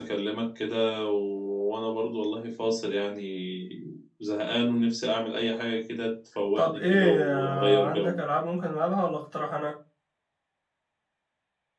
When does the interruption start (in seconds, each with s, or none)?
6.6 s